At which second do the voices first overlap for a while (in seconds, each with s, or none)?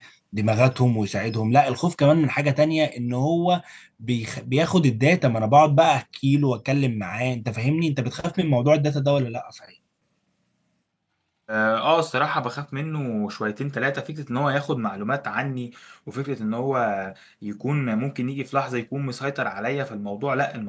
none